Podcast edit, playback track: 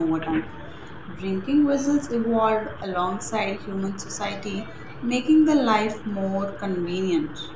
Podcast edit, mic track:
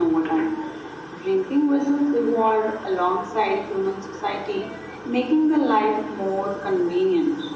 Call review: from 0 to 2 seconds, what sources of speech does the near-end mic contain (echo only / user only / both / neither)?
echo only